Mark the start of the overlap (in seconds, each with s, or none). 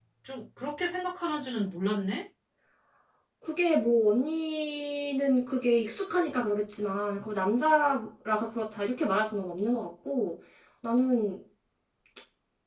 none